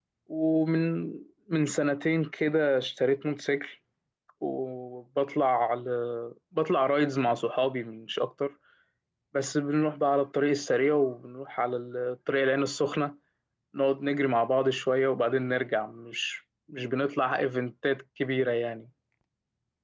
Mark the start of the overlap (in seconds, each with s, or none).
none